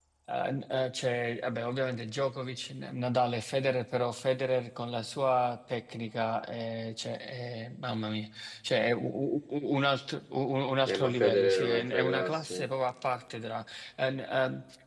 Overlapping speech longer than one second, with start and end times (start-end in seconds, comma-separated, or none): 10.9-12.6